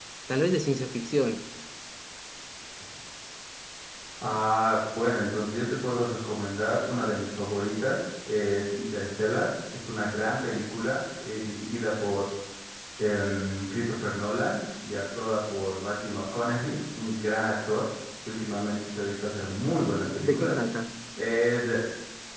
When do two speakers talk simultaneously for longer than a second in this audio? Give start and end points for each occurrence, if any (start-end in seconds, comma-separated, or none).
none